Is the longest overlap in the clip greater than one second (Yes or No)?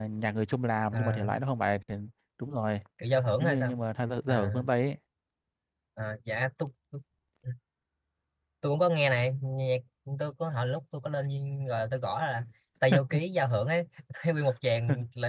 No